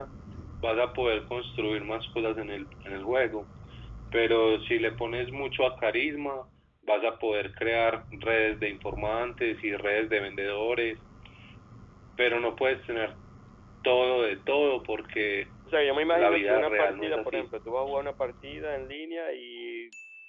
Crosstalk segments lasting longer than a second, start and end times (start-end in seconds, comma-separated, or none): 16.1-17.5